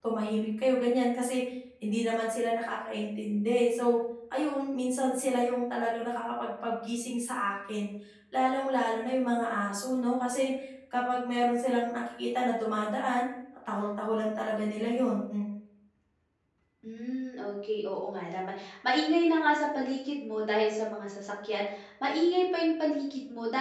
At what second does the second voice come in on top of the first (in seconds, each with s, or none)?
none